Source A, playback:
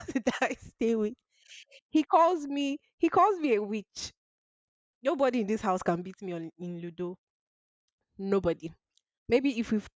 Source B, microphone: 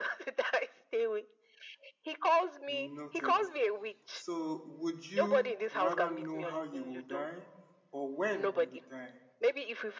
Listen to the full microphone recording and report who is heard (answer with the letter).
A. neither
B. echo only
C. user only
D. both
D